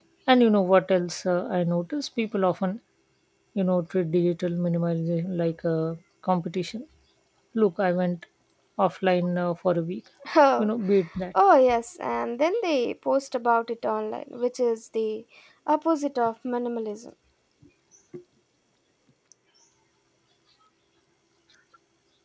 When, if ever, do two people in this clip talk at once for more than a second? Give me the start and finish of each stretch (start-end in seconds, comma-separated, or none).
none